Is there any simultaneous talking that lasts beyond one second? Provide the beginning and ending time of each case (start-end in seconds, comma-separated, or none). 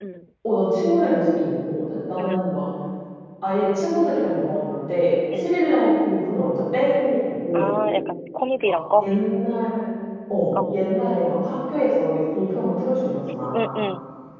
none